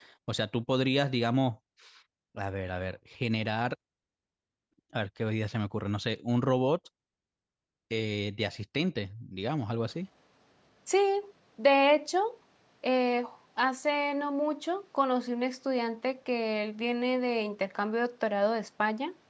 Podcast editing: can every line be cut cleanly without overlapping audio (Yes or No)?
Yes